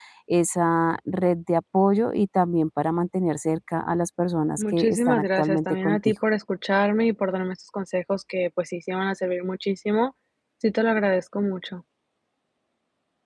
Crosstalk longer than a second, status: present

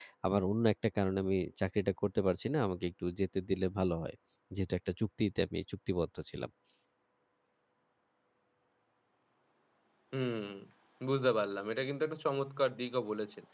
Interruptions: none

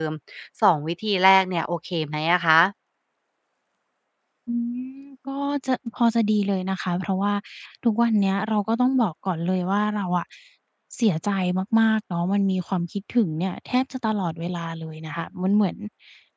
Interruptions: none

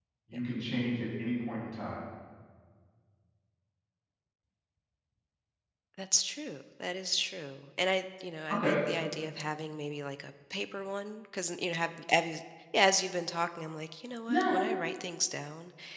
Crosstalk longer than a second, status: none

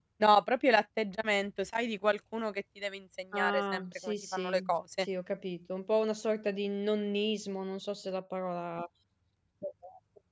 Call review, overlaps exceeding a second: present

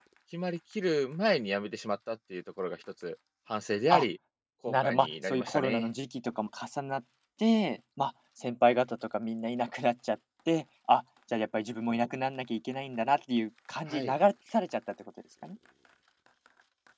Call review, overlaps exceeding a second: present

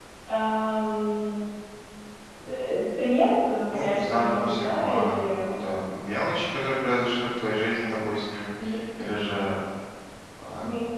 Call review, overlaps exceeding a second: present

